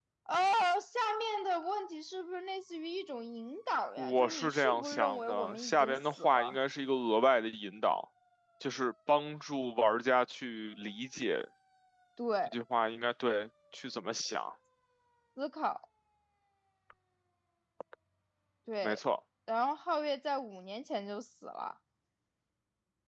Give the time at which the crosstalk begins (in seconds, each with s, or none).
4.0 s